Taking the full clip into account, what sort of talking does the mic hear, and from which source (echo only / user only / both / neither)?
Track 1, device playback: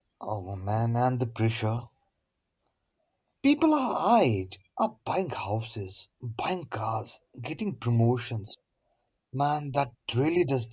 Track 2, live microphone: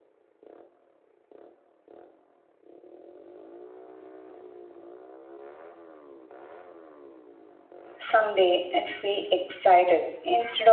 user only